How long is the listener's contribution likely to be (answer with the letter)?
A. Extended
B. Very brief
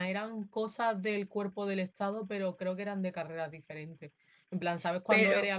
B